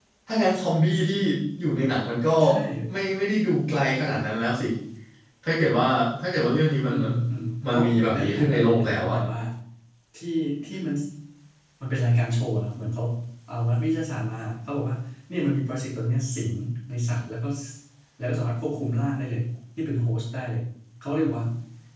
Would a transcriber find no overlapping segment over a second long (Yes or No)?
No